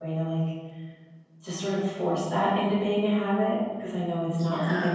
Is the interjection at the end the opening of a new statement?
No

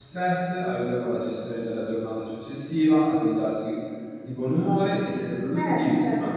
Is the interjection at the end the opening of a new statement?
Yes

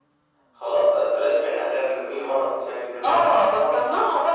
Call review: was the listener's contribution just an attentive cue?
No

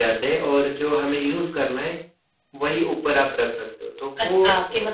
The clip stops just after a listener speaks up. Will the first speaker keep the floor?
No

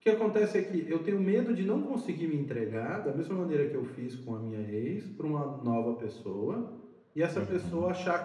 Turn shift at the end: No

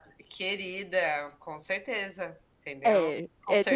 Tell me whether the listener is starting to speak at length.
Yes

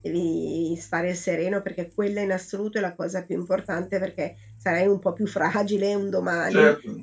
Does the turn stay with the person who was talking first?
No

